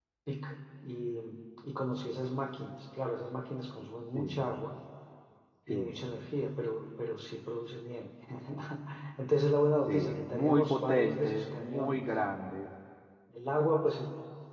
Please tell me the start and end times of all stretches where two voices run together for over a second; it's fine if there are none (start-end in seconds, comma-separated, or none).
9.8-12.0